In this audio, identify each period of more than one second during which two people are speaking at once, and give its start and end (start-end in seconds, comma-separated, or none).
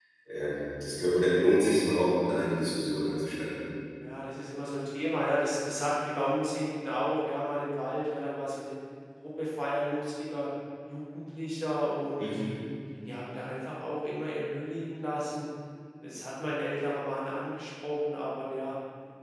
none